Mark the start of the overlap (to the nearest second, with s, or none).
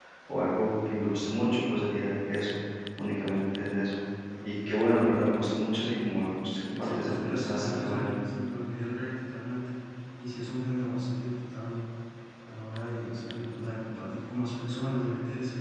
7 s